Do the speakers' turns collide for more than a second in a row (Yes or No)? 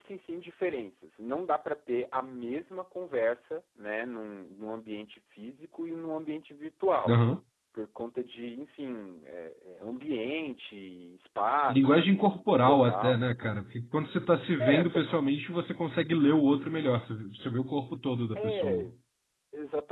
Yes